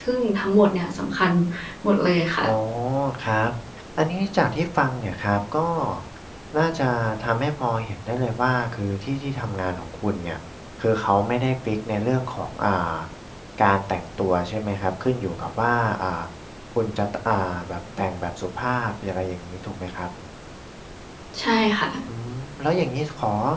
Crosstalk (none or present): none